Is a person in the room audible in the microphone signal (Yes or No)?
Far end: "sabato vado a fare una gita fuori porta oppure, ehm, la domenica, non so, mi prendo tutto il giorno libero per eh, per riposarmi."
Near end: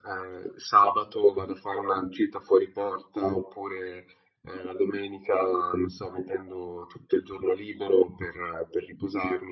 No